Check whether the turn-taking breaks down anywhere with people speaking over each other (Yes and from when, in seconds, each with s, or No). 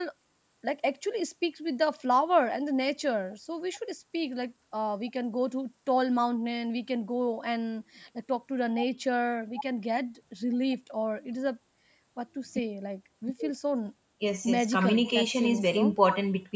Yes, from 14.4 s